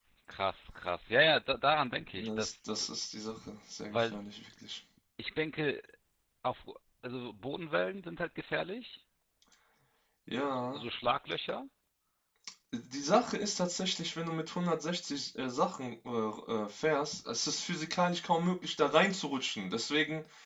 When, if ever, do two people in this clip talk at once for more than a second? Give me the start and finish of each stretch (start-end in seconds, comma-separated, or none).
none